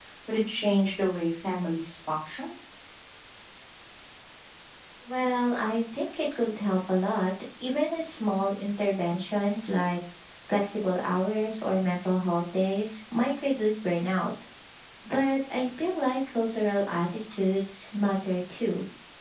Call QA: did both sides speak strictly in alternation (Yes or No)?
Yes